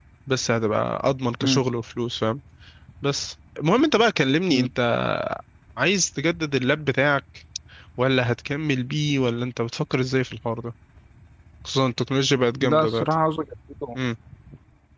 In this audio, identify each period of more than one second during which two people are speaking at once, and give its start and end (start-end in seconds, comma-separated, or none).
none